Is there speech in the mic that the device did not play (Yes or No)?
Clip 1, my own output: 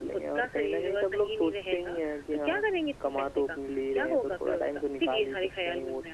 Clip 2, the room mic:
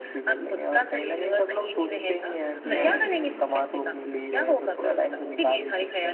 Yes